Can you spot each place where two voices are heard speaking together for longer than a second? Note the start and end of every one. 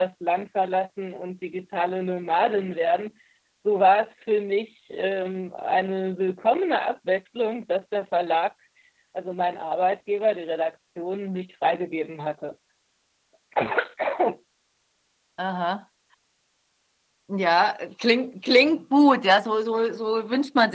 none

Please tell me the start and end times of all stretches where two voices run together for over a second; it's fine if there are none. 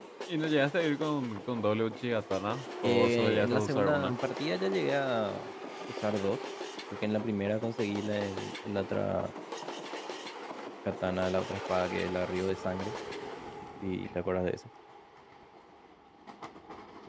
2.8-4.2

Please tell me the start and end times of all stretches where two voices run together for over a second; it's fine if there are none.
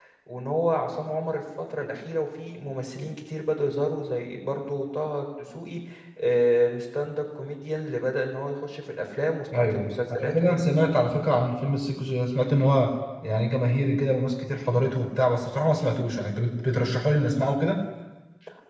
9.5-10.9

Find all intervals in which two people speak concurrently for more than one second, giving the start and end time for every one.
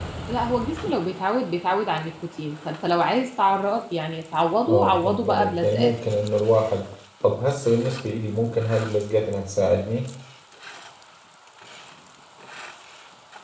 4.7-5.9

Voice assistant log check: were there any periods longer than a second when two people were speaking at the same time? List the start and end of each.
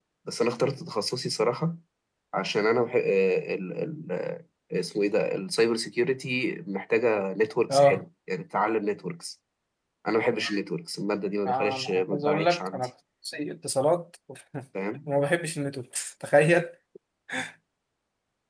11.5-12.9

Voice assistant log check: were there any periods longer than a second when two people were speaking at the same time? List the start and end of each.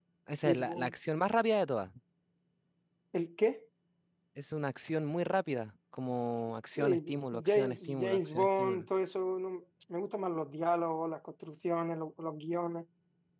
6.8-8.9

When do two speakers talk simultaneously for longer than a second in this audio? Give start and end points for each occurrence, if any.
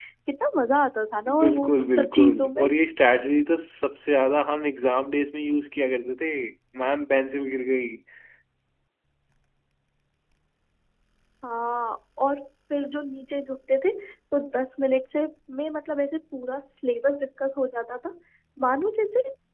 1.4-2.6

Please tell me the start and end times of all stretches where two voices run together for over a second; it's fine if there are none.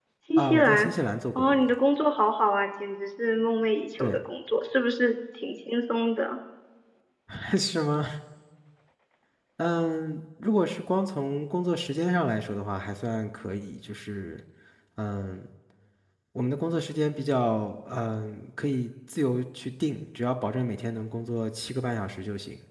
none

